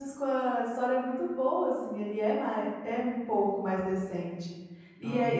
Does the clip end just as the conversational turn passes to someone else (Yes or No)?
No